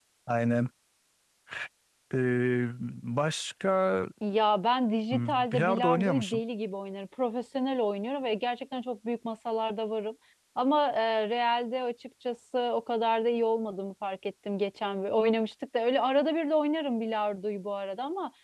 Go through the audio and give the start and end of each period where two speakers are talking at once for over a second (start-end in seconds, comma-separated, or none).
5.1-6.4